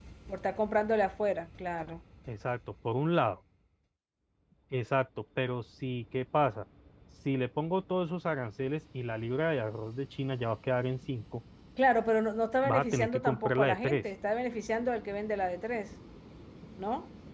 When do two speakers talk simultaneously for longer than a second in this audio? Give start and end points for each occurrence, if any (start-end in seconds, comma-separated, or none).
12.6-14.0